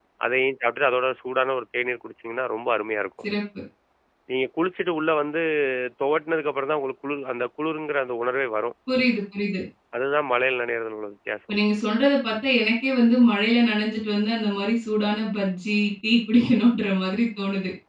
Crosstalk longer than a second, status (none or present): none